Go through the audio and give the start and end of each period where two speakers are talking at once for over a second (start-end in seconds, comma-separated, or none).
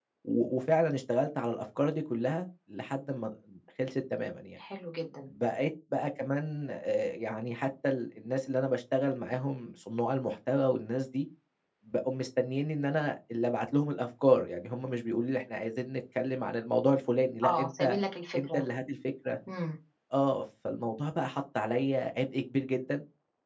none